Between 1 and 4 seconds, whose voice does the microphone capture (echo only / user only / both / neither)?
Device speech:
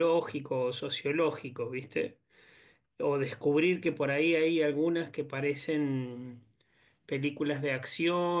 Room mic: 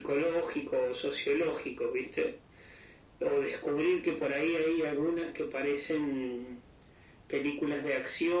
echo only